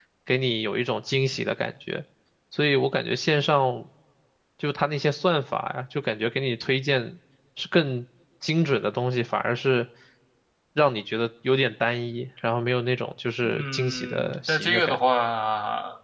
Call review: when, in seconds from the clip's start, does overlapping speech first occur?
13.4 s

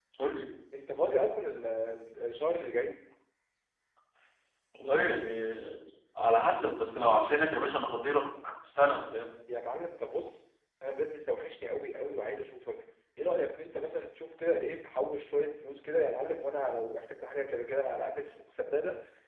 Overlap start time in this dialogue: none

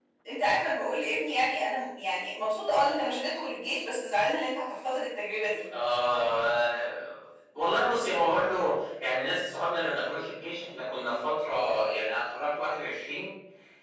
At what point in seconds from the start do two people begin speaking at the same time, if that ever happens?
none

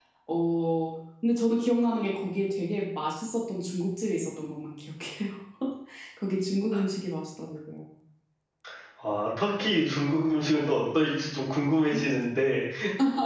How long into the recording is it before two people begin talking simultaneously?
none

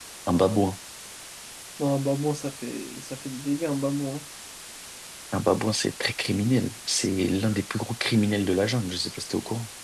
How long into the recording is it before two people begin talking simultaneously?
none

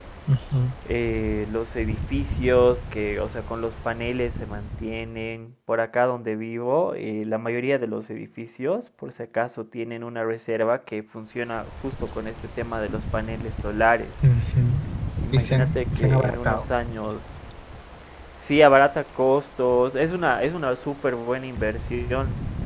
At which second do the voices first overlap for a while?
15.3 s

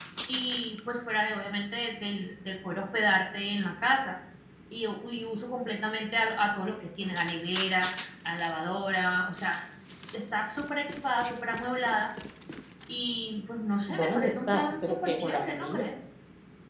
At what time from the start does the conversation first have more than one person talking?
13.9 s

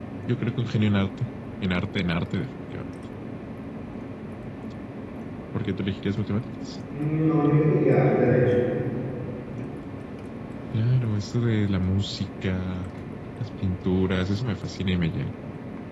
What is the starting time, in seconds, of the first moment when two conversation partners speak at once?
none

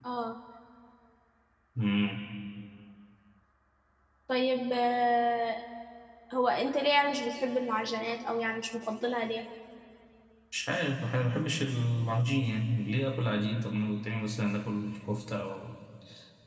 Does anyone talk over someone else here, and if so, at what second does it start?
none

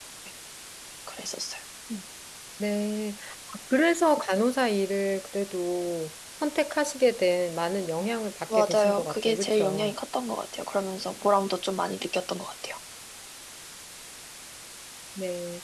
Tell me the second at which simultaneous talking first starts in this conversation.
8.5 s

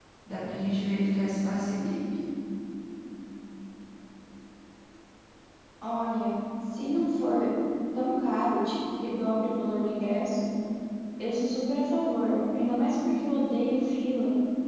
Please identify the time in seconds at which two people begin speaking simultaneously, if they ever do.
none

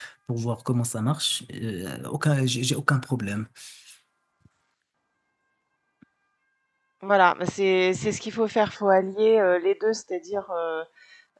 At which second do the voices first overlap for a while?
none

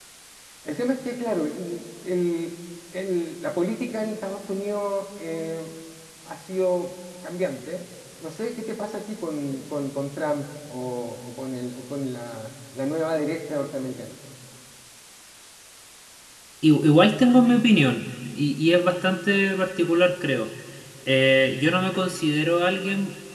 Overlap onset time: none

